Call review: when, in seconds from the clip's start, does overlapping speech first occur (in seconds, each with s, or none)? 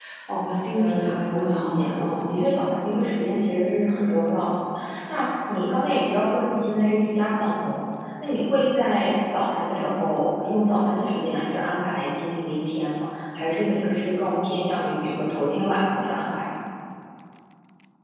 0.7 s